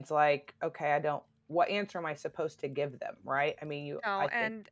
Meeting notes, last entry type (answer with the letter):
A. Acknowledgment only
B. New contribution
B